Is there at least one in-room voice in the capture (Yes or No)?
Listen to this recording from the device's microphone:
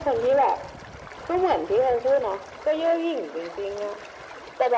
No